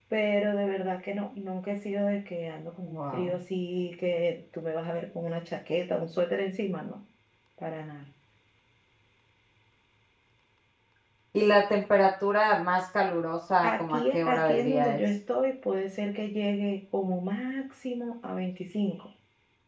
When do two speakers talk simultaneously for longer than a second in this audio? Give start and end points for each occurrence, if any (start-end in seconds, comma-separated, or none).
13.6-15.0